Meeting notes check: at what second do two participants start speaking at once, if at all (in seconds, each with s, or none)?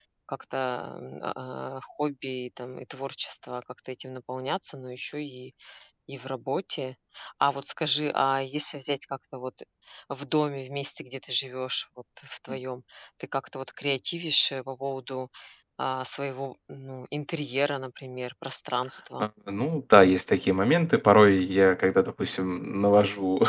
none